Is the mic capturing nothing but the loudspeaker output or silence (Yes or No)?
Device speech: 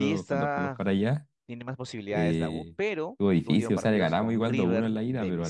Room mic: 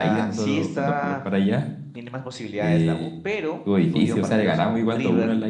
Yes